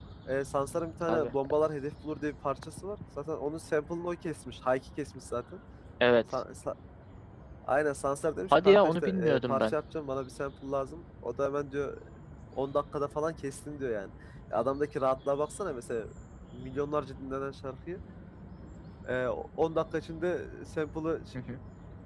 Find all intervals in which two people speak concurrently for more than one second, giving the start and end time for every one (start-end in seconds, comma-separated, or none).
8.5-9.7